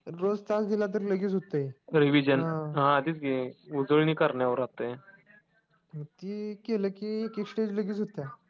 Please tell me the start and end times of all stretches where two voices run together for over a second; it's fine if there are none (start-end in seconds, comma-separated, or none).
none